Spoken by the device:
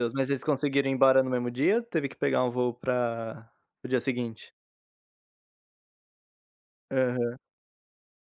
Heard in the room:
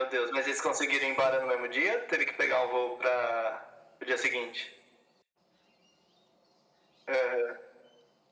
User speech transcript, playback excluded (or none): none